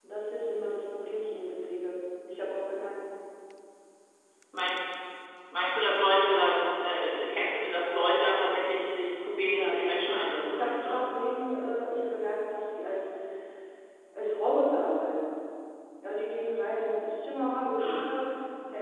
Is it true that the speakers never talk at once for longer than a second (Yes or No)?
No